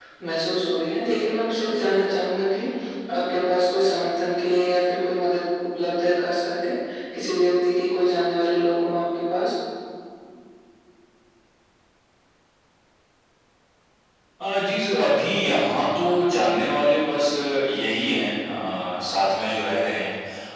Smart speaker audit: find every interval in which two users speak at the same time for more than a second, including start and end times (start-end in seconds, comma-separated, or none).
none